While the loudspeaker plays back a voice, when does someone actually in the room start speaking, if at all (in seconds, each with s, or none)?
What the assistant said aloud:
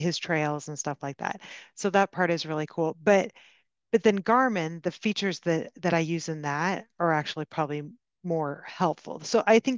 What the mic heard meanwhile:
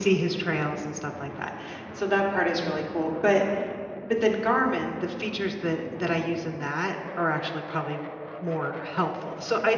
none